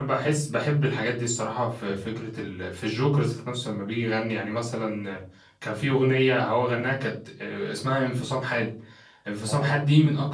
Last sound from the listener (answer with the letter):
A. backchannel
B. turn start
A